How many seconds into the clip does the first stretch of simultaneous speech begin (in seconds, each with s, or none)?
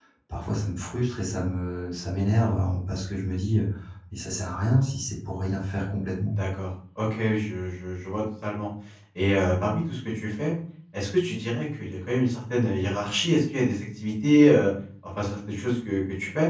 none